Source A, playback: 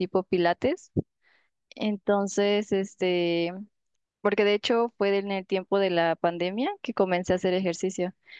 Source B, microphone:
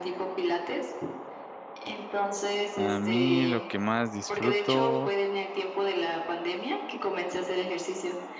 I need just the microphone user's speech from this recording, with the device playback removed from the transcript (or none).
A mí lo que más disfruto,